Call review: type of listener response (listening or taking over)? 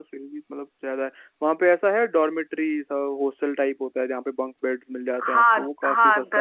taking over